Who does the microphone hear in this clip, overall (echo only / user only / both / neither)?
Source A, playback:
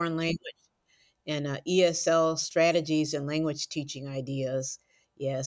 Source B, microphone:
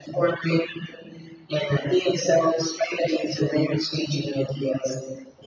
echo only